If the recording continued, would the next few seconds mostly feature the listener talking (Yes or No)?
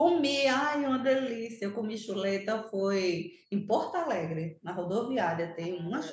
Yes